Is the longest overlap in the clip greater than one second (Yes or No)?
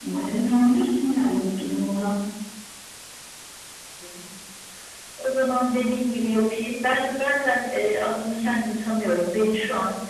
No